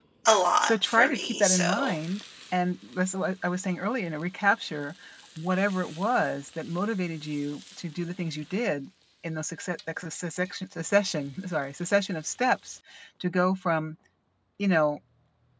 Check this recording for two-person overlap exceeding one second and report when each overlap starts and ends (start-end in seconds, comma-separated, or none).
0.6-1.9